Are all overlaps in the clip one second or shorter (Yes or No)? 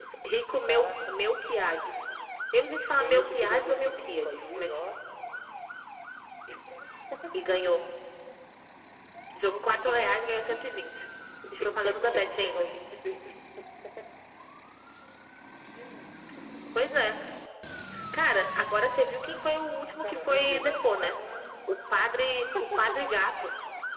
No